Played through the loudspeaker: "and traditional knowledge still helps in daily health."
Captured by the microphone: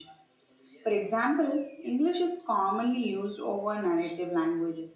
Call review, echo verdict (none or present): none